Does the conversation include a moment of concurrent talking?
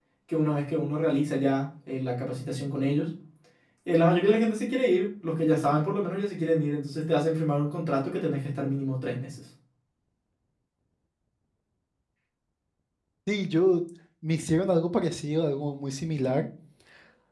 No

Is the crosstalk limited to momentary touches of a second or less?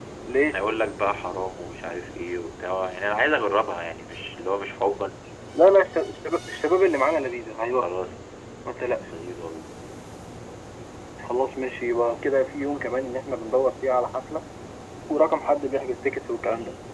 Yes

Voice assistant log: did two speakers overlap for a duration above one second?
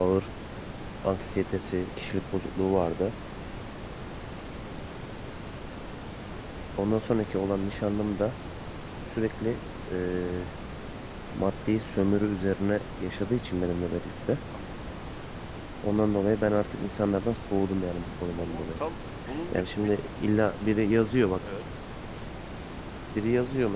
No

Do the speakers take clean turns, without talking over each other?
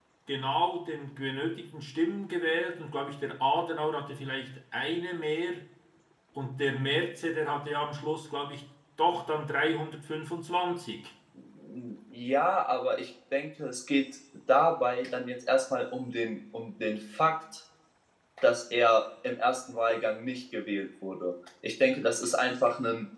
Yes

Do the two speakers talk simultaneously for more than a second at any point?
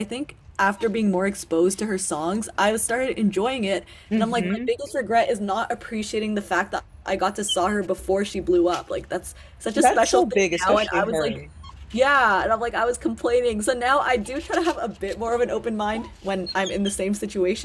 Yes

